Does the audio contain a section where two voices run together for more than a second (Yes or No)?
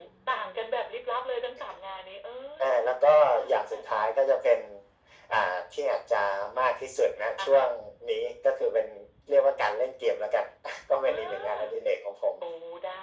Yes